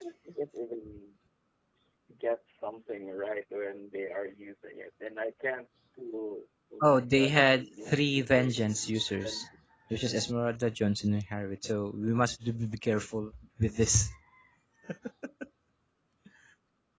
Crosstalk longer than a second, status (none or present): present